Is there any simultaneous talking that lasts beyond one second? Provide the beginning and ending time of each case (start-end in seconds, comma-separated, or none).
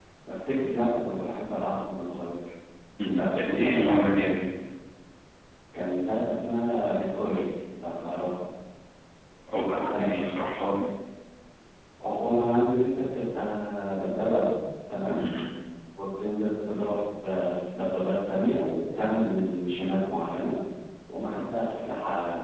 3.1-4.3